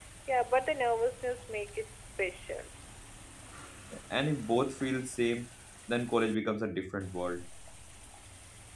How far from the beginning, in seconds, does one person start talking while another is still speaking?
none

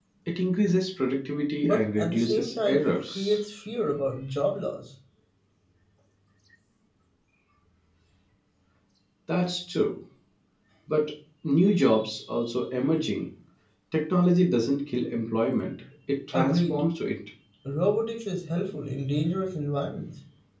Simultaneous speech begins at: 1.6 s

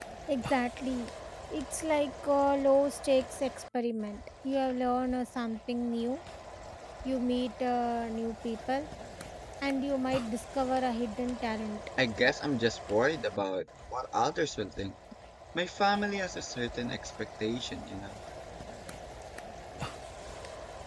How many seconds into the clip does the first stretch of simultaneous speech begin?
none

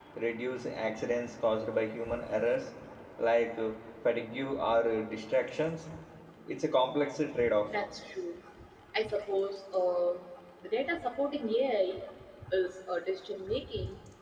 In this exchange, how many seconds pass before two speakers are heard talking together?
none

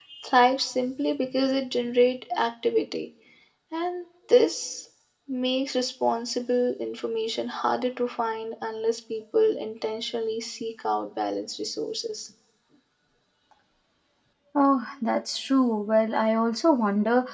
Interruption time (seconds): none

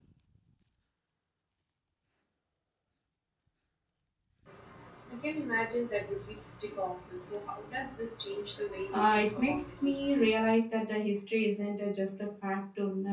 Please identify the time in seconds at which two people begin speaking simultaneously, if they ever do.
8.9 s

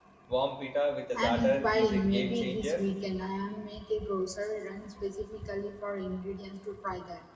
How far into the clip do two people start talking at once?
1.1 s

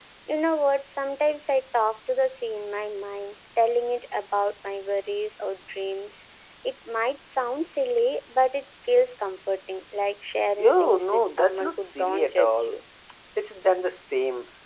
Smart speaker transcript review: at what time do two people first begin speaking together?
10.5 s

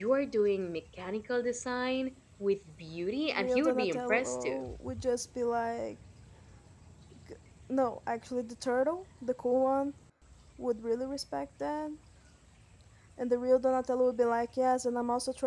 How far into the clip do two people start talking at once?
3.3 s

